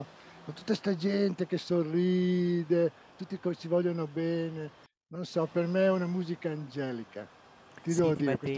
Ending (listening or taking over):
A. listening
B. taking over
B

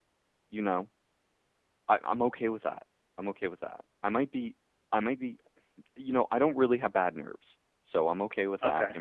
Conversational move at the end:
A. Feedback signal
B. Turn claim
A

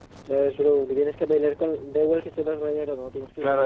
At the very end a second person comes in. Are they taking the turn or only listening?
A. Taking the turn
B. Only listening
A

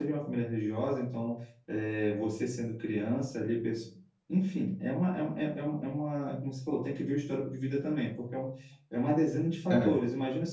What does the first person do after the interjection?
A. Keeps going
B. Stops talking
A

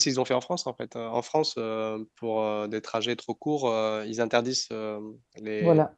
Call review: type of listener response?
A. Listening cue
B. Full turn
A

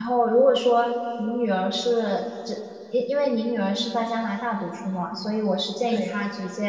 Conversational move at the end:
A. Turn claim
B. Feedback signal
B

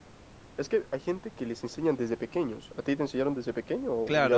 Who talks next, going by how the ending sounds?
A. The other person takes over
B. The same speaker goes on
A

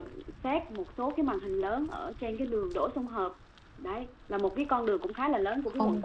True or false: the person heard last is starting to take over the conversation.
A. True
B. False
A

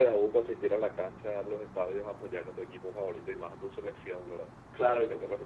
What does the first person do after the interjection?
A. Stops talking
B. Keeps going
A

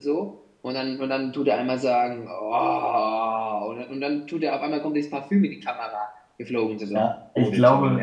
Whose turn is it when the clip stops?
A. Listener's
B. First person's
A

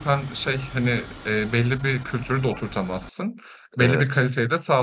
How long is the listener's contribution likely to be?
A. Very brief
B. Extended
A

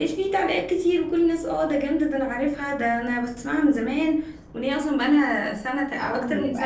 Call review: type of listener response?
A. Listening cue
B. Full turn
B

